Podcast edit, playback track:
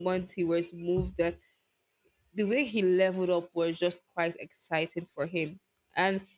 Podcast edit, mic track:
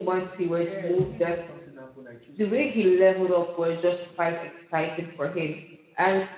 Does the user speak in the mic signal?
Yes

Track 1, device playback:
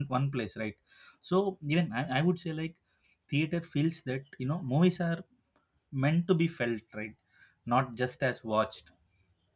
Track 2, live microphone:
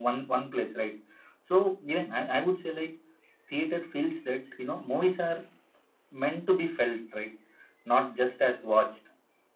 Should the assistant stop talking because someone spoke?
No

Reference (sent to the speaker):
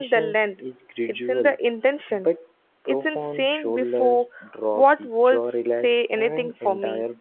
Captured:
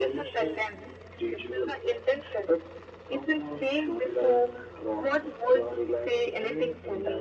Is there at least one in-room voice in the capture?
No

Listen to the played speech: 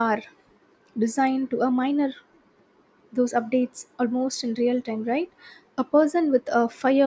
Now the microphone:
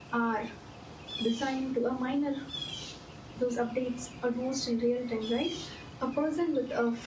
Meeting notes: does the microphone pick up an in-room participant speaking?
No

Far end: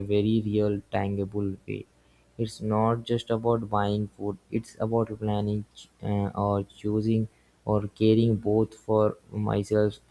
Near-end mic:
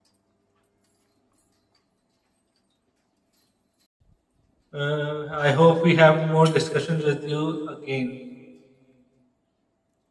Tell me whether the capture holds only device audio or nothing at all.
No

